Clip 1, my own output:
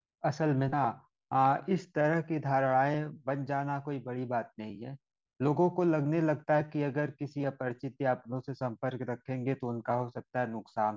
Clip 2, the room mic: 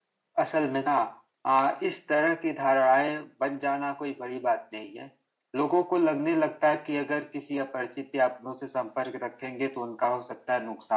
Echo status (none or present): present